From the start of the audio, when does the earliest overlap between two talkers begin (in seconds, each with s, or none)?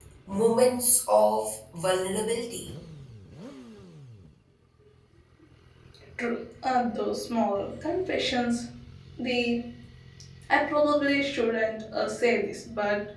none